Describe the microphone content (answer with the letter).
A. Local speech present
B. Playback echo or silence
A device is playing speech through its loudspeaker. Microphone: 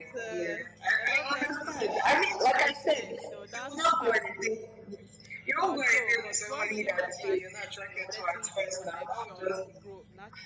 A